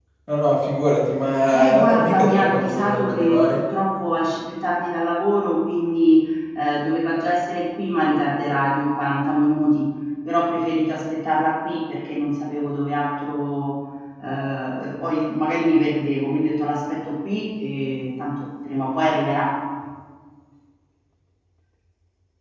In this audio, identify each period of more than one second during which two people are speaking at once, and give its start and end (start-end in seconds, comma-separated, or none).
1.5-3.6